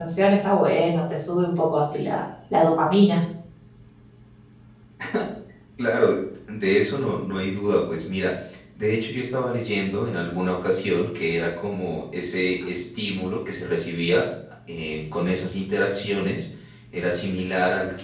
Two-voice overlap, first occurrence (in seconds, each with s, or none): none